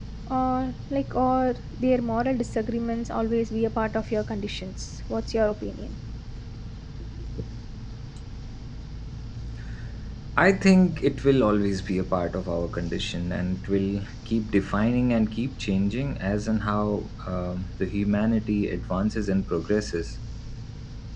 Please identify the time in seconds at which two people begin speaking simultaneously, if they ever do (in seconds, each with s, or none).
none